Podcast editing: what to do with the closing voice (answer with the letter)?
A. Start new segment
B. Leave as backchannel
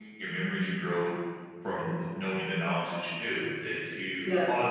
B